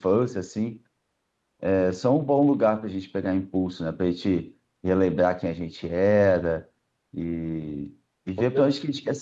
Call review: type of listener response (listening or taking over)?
listening